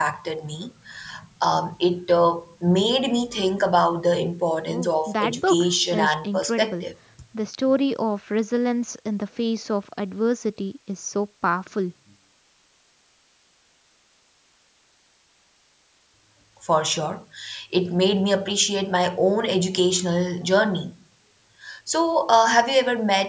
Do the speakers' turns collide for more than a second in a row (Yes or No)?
Yes